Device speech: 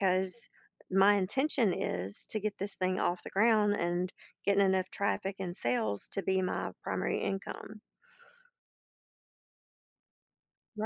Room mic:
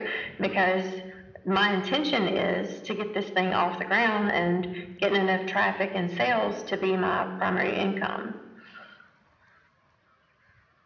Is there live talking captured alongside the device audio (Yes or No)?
No